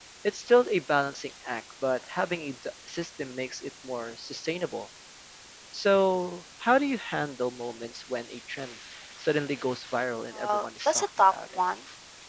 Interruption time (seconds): 10 s

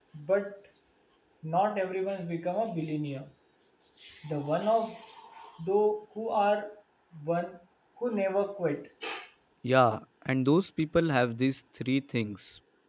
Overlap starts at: none

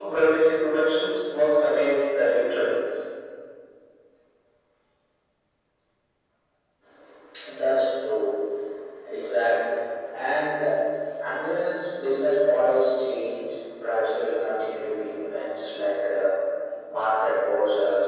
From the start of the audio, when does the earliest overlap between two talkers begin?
none

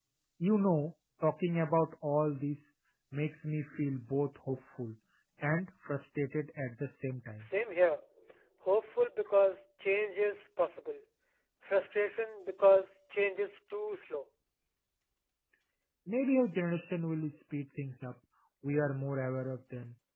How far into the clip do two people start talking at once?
none

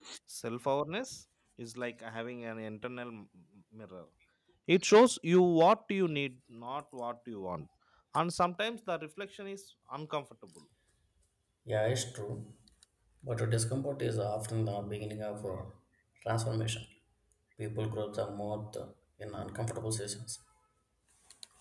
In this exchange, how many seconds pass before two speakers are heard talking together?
none

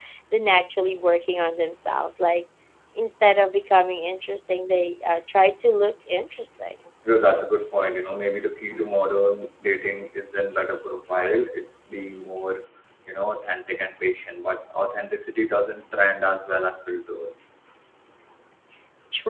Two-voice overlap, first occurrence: none

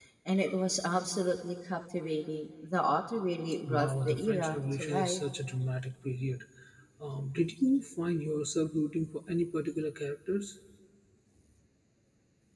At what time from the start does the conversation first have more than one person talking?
4 s

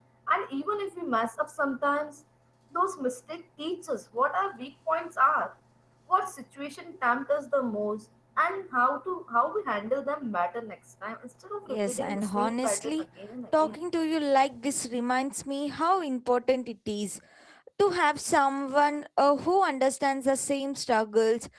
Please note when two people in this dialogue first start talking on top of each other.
12 s

